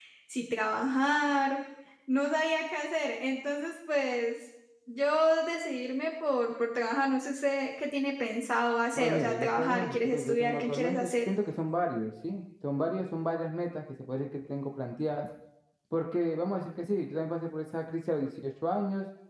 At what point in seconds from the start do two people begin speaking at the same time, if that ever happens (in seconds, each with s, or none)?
8.9 s